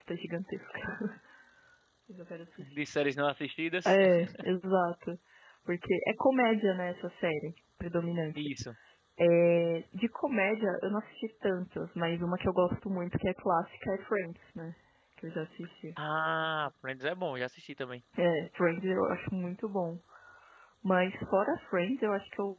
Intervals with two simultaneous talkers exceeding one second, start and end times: none

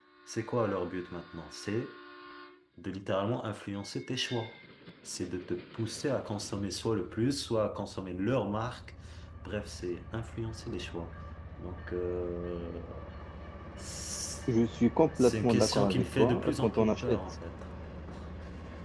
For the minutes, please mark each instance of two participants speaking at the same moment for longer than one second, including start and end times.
15.2-17.2

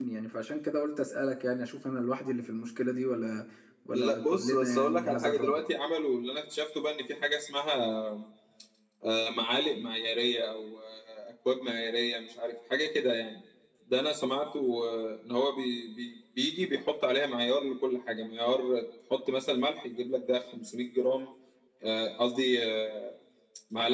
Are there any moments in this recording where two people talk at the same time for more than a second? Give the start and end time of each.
3.9-5.6

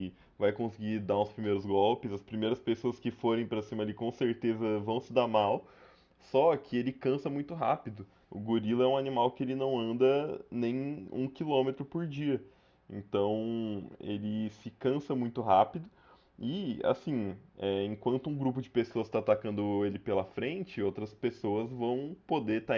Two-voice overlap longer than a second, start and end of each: none

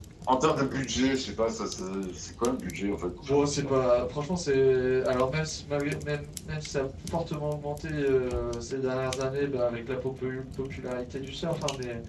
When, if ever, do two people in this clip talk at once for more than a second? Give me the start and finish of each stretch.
none

